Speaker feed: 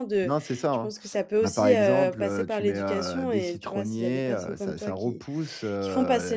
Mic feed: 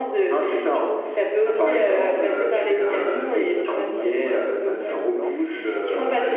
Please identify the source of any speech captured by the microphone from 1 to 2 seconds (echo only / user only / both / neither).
echo only